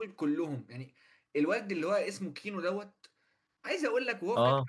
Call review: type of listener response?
listening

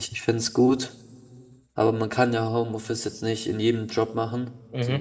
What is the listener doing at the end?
listening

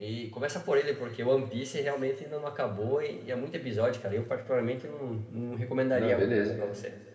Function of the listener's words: taking over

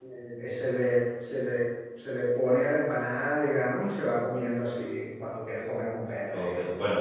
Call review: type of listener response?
taking over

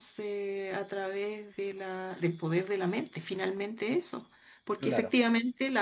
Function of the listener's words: listening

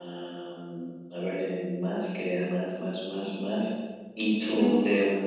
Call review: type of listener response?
listening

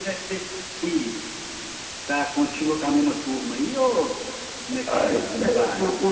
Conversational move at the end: taking over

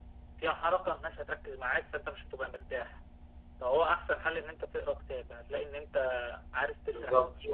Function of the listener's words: listening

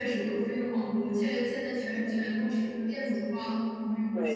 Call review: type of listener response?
taking over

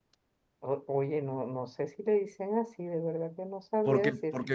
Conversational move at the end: taking over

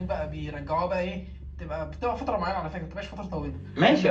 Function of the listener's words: taking over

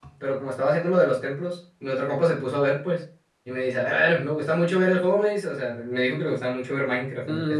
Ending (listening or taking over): taking over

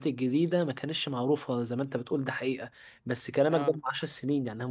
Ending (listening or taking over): listening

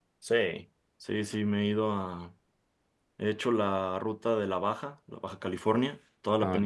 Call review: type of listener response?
listening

